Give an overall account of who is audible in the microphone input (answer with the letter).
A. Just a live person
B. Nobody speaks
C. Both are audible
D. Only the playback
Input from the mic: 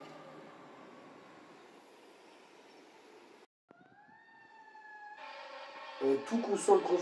A